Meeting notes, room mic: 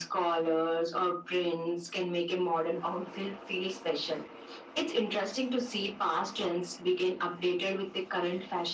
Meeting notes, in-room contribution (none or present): none